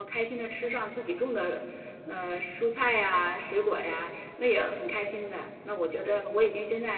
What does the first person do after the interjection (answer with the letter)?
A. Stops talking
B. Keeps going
B